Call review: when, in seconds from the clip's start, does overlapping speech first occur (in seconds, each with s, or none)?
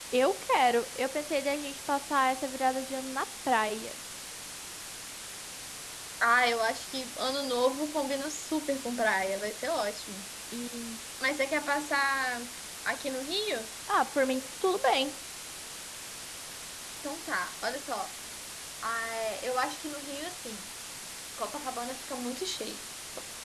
none